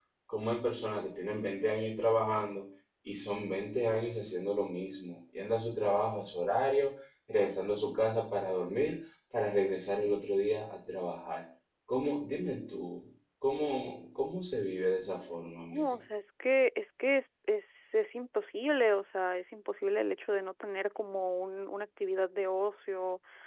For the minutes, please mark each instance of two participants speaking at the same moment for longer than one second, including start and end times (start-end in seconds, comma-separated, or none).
none